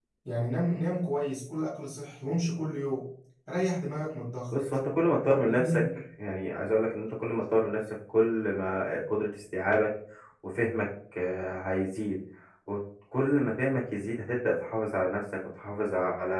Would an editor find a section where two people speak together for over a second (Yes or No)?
No